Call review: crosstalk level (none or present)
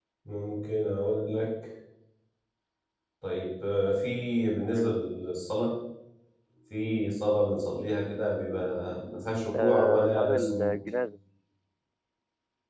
present